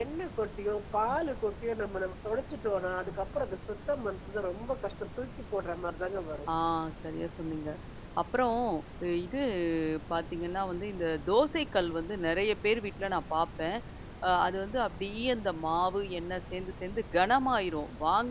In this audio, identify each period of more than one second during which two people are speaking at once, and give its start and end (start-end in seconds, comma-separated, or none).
none